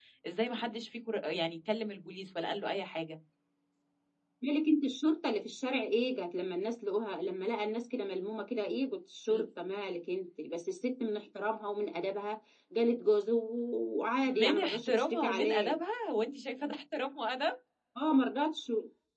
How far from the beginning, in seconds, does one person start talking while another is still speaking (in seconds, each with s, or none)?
14.3 s